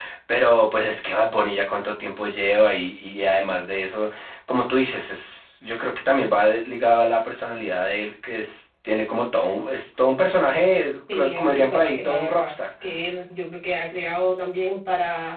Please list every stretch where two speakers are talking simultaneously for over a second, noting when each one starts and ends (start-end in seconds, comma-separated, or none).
11.1-12.5